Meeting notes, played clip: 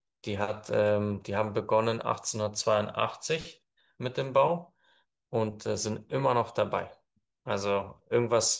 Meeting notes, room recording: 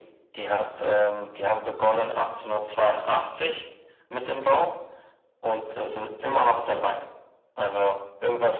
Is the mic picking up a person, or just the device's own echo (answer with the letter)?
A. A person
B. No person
B